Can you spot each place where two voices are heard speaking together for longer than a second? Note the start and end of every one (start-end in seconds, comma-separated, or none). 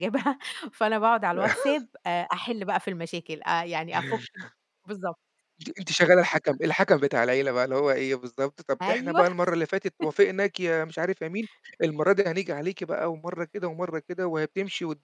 none